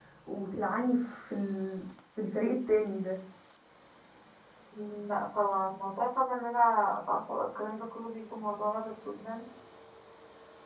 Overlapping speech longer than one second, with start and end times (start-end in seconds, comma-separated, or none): none